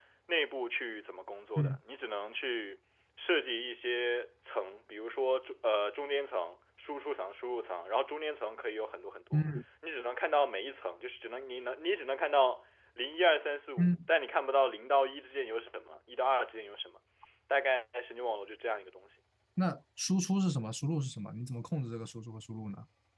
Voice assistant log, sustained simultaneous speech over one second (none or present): none